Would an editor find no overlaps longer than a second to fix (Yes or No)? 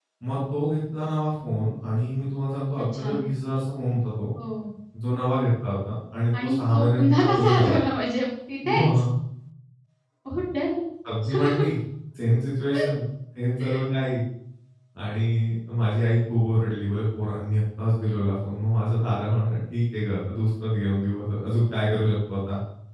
No